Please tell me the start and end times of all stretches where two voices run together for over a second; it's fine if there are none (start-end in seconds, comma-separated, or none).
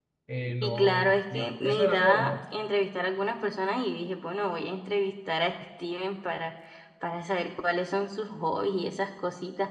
0.6-2.3